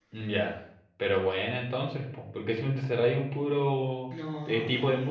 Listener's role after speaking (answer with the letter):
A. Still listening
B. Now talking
A